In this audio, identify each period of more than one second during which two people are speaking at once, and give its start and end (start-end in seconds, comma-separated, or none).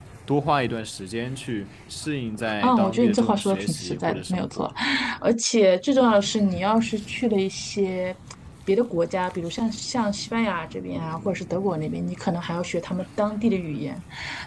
2.6-4.7